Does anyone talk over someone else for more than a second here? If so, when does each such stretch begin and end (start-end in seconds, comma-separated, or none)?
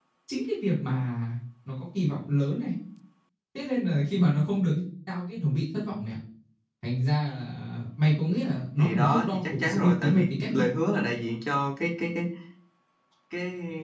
8.8-10.5